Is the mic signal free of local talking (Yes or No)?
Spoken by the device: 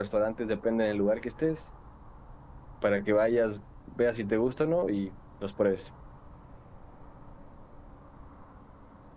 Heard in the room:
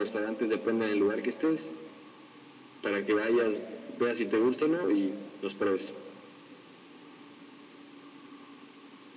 Yes